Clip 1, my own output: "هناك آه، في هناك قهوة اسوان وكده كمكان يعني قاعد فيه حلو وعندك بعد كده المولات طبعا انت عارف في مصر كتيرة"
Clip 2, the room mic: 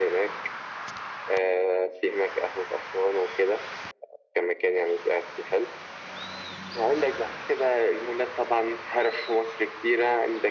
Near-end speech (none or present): none